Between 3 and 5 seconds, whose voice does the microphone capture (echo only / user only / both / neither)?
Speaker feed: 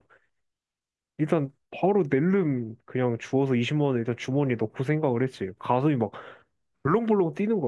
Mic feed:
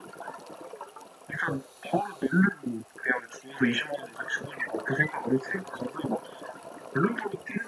echo only